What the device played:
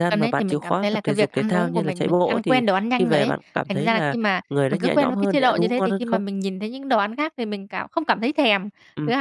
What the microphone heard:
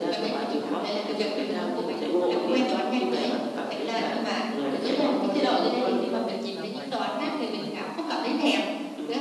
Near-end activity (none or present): present